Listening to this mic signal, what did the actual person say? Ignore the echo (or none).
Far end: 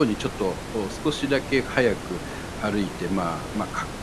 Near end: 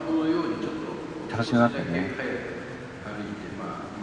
楽しめますよね。